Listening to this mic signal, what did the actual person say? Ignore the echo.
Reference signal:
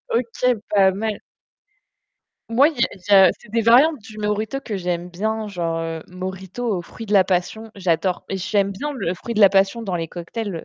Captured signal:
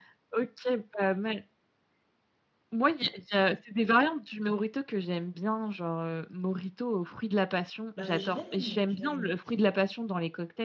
Bah j'ai bien aimé, j'ai bien aimé.

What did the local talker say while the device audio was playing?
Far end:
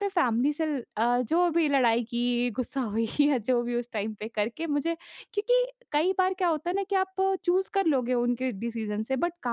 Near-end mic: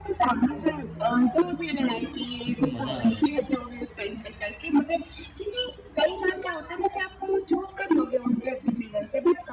जिसमे तुम्हें मज़ा आ रहा है।

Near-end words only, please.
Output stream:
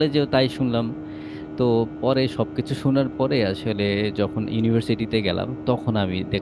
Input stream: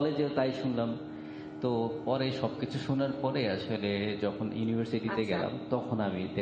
আচ্ছা।

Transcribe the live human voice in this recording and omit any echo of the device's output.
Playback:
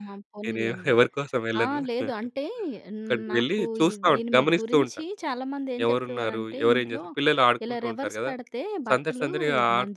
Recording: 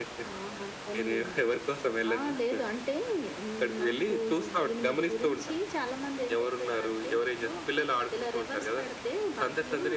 none

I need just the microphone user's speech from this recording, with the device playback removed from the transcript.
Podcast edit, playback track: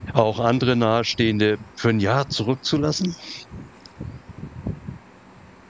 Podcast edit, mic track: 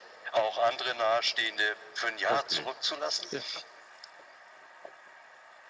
O okay. Ja.

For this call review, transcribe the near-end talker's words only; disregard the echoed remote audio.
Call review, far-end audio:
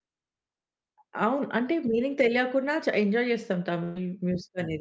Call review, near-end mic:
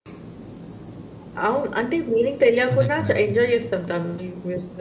అదే కదండీ!

